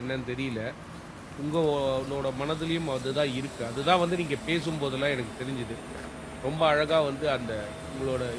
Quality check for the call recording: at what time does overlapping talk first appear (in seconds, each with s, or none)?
none